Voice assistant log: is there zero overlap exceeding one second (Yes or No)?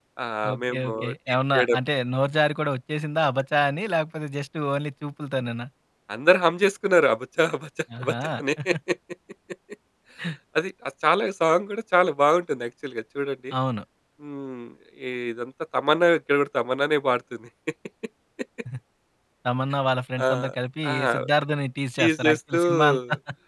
No